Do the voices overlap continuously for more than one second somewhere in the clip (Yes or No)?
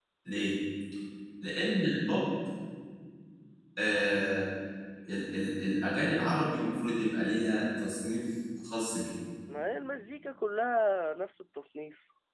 No